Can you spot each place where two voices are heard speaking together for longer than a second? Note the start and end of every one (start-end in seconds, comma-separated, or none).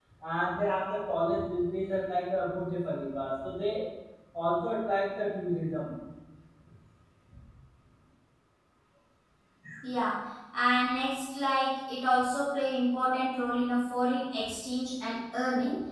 none